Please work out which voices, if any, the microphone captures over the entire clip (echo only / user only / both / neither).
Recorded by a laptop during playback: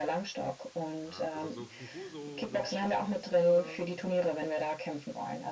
both